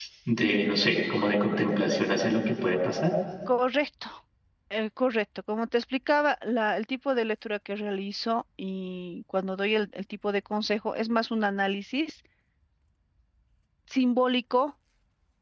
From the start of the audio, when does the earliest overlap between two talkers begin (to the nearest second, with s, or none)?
none